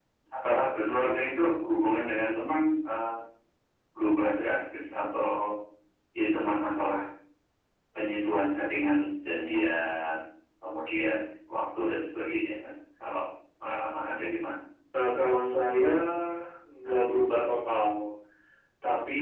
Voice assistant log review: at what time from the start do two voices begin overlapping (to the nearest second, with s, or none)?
none